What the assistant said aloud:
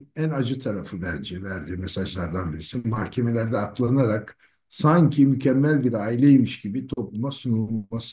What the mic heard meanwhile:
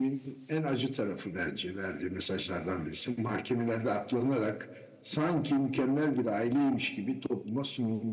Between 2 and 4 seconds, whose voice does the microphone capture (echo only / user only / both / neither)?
echo only